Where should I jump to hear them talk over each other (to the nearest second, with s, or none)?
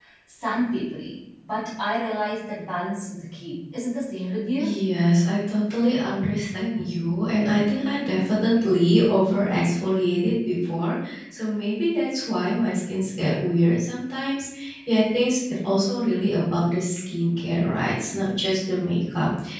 none